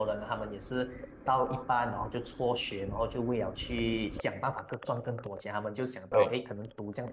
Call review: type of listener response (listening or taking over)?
listening